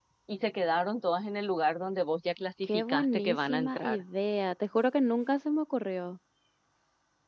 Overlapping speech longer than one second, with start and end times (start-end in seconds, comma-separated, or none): 2.7-4.0